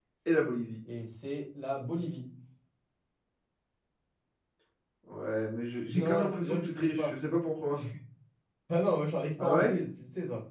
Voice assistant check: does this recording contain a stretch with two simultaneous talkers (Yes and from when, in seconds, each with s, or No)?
Yes, from 5.9 s